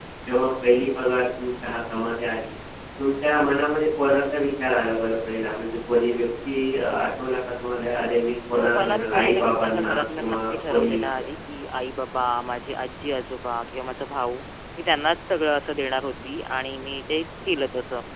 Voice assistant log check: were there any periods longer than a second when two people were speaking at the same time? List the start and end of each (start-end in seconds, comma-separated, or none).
8.5-11.0